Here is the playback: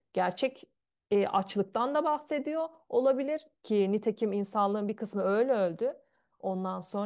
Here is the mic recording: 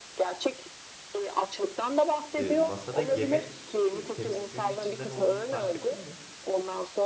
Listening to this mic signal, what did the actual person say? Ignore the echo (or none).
e, masada yemek e, tepsisinin içinde ne olduğunu fark ettin mi?